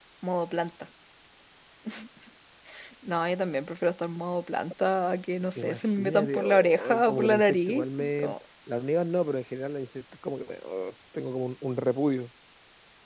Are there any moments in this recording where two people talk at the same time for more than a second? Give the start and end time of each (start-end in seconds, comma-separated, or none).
5.6-8.3